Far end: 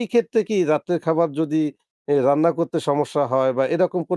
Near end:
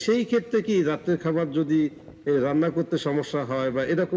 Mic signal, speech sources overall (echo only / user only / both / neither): echo only